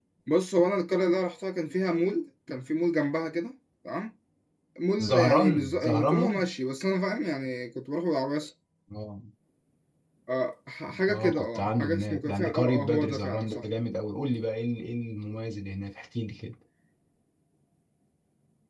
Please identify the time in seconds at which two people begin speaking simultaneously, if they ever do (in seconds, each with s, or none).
5.0 s